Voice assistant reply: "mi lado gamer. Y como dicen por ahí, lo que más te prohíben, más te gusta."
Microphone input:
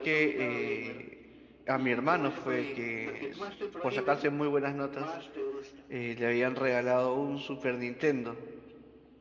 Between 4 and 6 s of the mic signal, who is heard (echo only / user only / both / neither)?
both